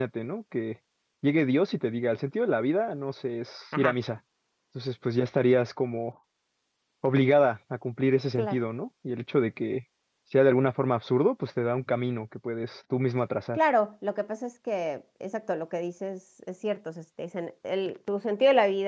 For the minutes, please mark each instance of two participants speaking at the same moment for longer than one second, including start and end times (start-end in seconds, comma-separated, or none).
none